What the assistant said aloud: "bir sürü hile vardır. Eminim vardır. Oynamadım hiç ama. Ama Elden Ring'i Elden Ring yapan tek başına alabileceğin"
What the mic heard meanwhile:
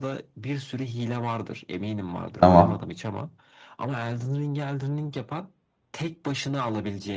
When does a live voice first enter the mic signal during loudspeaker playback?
2.4 s

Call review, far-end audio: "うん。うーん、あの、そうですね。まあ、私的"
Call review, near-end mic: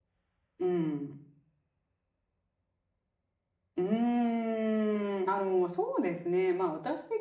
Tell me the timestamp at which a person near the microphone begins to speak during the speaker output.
none

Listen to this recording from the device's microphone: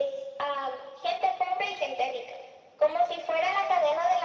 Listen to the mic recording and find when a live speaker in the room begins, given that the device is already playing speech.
none

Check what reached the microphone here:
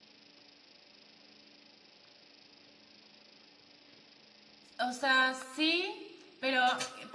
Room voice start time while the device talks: 4.8 s

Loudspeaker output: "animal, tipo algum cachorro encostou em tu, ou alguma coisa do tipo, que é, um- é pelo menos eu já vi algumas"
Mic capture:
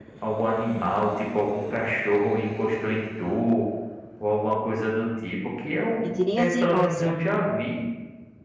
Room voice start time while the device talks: 6.0 s

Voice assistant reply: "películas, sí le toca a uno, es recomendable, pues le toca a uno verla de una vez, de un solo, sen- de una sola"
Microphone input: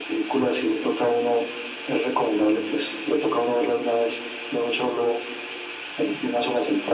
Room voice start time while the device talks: none

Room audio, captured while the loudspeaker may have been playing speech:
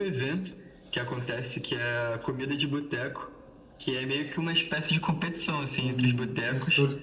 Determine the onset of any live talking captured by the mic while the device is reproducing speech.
5.8 s

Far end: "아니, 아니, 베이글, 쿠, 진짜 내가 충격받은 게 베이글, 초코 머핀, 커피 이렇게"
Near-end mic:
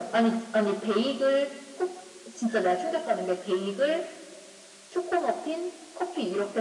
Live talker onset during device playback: none

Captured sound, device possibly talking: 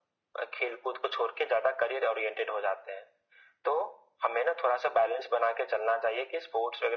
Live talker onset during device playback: none

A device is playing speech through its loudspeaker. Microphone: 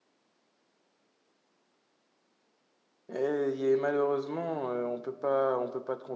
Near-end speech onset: 3.1 s

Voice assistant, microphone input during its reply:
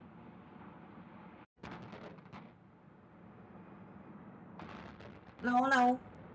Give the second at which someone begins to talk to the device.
5.4 s

